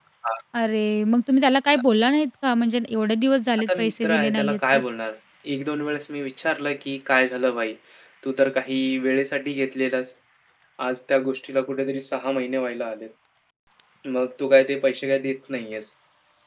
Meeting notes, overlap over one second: present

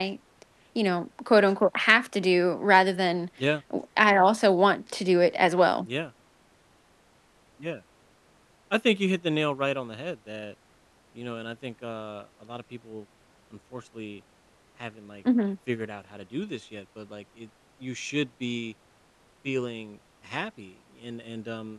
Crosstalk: none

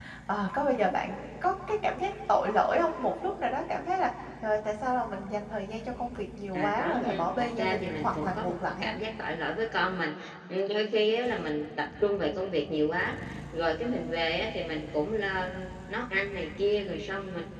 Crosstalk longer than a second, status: present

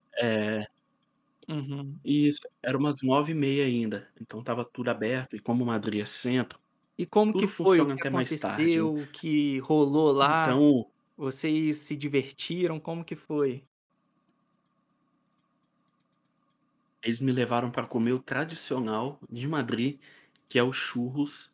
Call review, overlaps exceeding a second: present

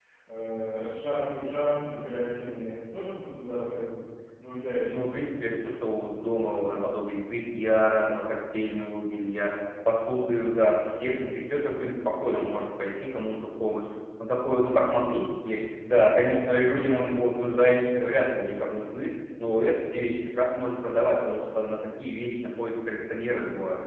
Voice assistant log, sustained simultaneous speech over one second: none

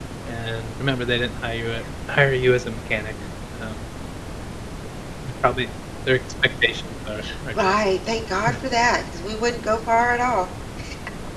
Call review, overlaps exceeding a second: none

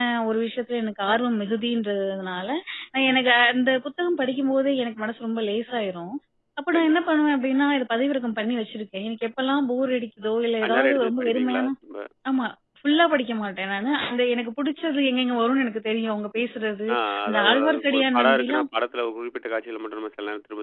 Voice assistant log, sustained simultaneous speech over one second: present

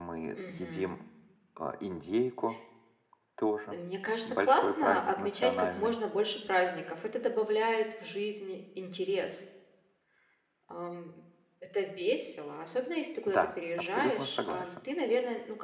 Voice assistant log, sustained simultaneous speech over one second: present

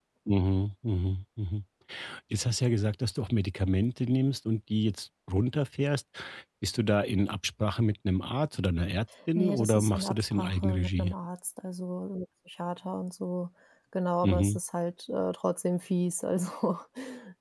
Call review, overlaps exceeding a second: present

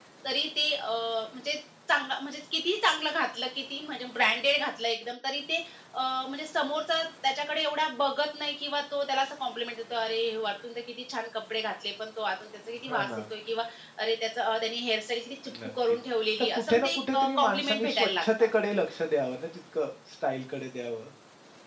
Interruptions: present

